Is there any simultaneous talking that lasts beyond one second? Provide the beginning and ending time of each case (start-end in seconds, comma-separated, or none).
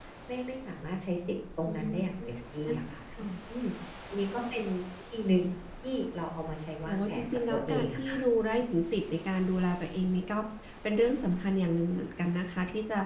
6.9-8.2